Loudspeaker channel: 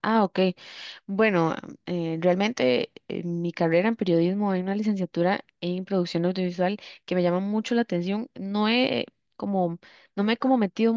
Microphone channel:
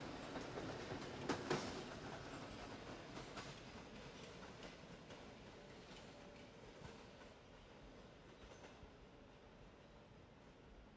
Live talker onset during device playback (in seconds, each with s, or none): none